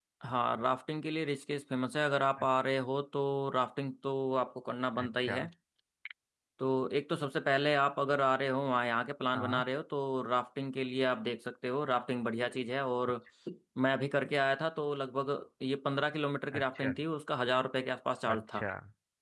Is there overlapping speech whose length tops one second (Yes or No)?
No